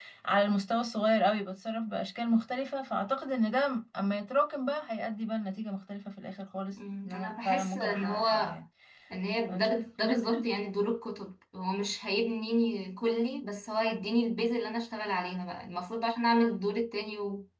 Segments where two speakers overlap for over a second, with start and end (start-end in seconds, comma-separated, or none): 7.0-8.6